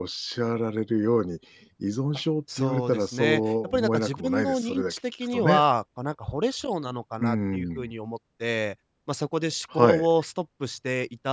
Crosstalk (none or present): present